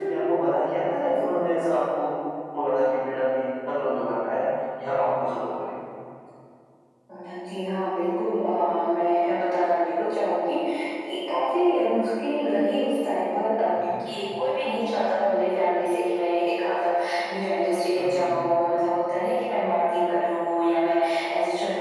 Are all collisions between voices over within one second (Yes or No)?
Yes